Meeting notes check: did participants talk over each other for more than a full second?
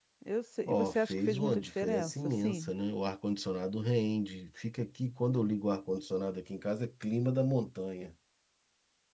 Yes, from 0.7 s

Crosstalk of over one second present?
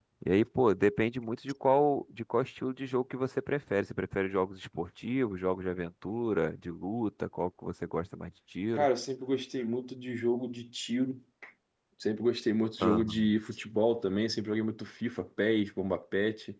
No

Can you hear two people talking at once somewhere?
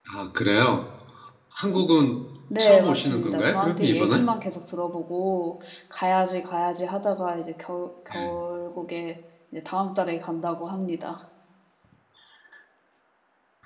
Yes, from 2.5 s

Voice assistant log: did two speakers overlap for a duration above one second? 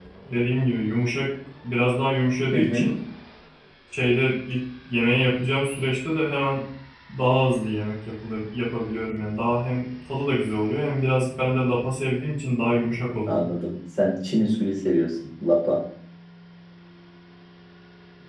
No

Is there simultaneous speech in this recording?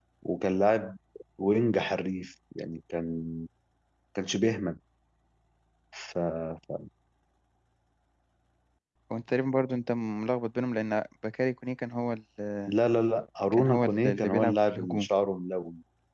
Yes, from 13.5 s

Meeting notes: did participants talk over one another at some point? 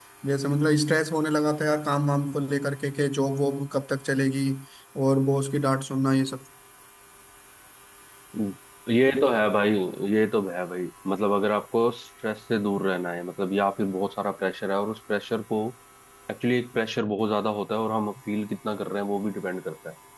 No

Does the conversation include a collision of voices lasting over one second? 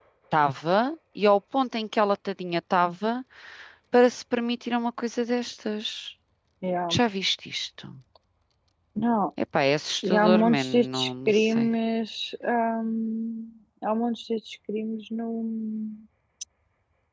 Yes, from 10.0 s

